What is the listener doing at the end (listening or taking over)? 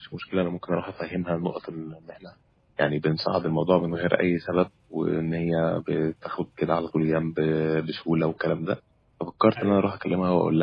listening